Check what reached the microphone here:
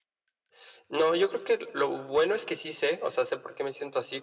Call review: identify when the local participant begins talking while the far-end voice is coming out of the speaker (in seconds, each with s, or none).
none